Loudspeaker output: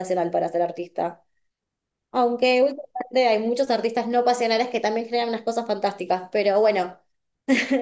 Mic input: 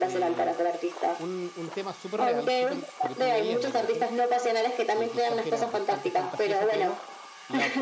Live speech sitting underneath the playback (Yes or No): Yes